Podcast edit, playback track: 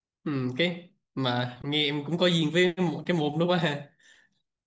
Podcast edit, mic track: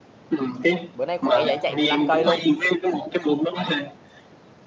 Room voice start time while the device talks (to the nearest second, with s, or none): 1 s